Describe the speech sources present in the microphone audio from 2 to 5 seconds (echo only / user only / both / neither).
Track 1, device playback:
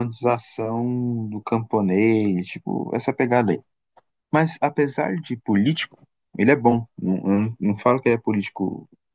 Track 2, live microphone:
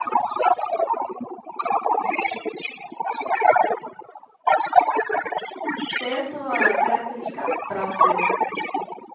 echo only